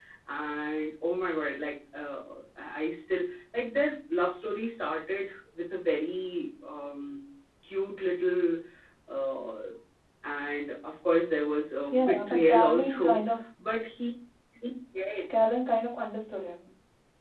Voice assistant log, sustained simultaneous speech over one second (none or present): present